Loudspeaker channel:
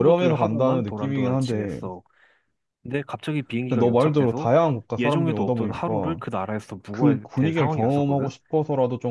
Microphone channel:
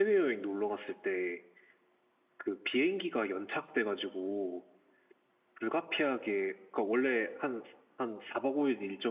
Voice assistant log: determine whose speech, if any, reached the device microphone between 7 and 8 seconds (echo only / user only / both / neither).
user only